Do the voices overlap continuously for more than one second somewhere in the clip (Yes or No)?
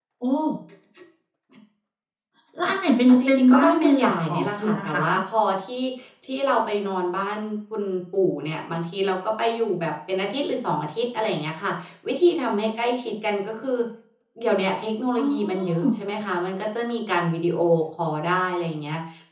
Yes